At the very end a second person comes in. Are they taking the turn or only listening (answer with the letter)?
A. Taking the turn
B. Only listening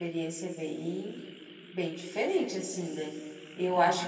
B